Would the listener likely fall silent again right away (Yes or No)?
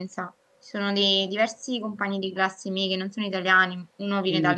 No